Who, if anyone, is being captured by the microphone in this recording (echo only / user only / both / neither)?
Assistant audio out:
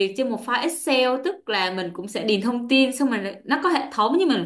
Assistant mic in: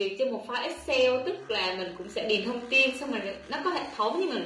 echo only